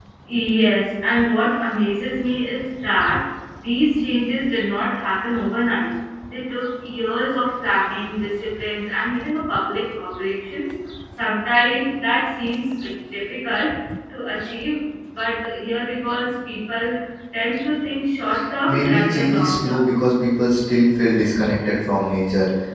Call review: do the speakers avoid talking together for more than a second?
No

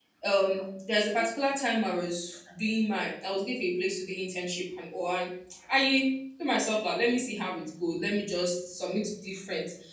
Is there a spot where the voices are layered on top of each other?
No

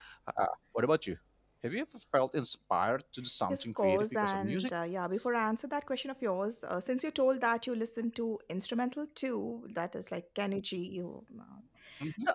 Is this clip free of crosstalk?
No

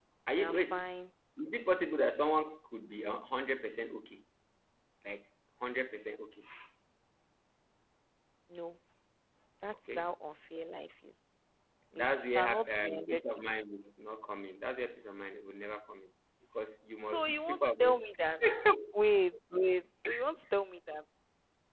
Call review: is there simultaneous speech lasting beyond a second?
Yes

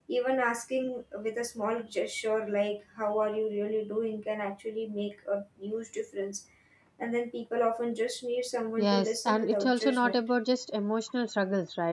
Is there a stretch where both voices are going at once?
Yes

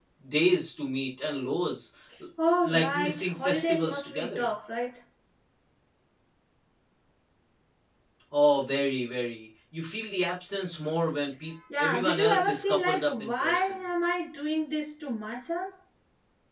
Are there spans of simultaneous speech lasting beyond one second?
Yes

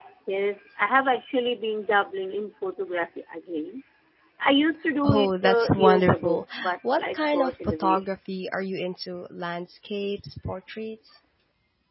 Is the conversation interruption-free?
No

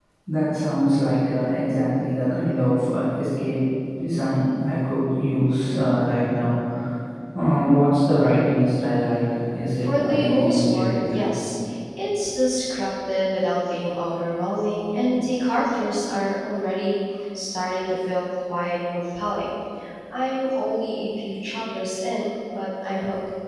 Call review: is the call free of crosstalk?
No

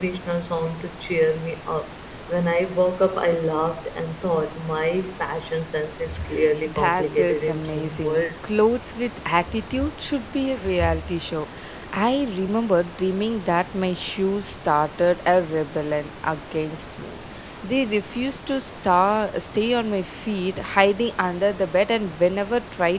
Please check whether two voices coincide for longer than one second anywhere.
Yes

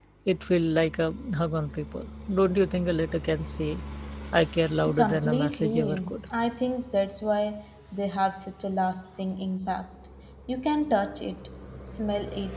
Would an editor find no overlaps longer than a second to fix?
No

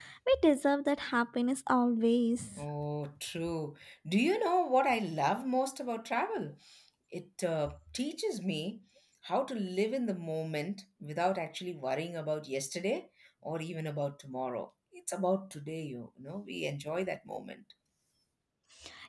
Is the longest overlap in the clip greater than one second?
No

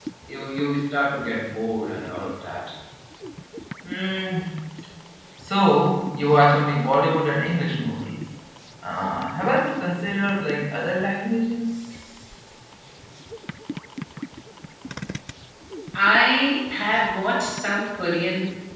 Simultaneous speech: No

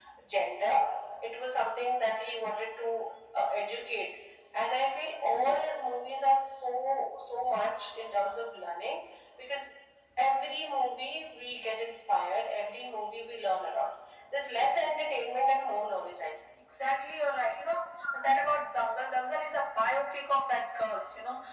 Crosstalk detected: No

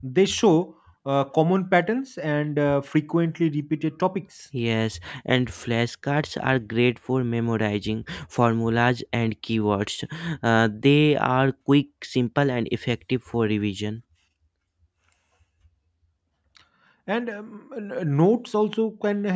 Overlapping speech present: No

